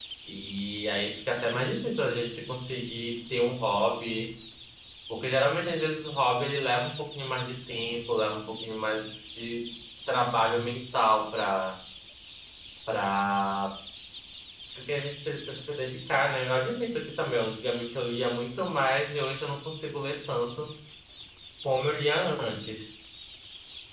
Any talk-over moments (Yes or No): No